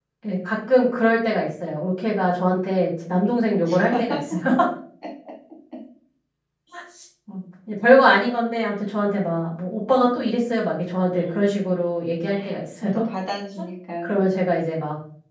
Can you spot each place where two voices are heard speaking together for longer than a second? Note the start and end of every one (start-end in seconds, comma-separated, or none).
none